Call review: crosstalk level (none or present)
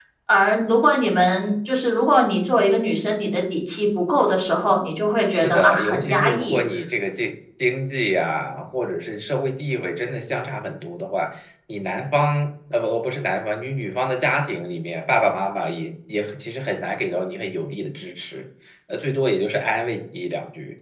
present